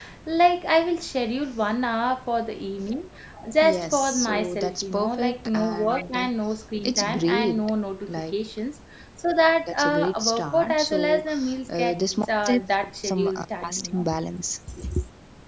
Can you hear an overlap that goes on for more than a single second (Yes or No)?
Yes